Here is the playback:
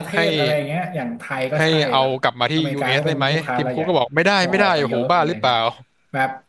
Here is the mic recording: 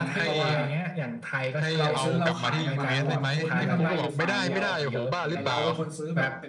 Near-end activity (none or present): present